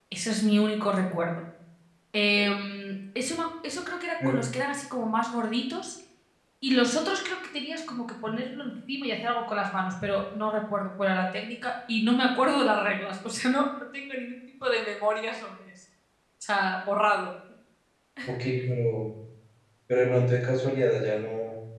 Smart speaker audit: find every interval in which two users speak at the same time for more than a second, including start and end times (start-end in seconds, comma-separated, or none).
none